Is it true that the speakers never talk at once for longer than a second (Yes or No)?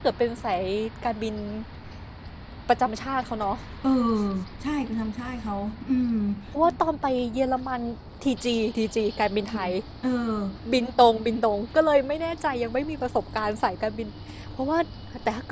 Yes